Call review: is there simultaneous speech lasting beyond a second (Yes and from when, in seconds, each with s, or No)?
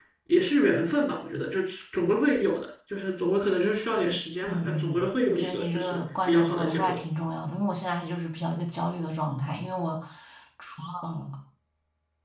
Yes, from 4.4 s